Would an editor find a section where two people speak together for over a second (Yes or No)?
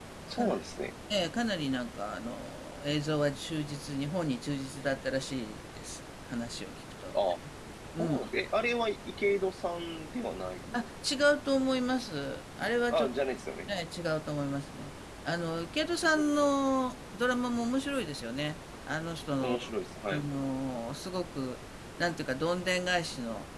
No